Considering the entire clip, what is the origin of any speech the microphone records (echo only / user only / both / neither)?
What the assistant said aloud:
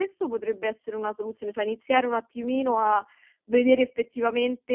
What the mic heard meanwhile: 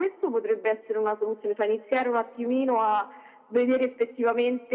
echo only